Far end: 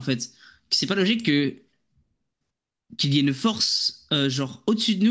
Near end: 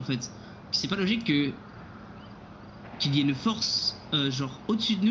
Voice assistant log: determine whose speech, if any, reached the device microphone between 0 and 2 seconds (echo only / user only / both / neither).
echo only